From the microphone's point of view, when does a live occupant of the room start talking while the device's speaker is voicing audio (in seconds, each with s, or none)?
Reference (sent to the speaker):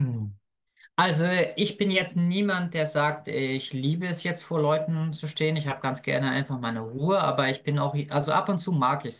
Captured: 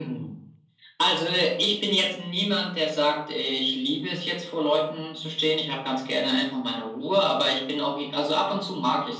none